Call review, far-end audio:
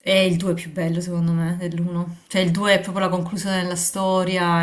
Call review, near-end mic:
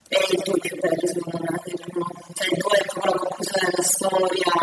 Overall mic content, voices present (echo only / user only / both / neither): echo only